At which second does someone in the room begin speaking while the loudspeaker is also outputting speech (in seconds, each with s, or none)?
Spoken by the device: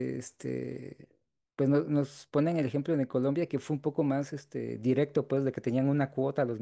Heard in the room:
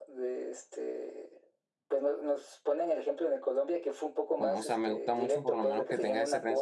4.4 s